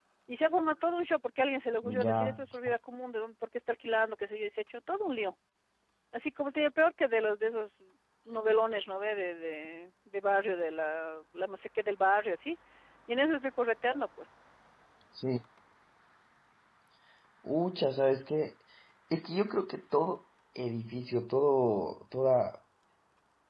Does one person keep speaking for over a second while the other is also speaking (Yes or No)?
No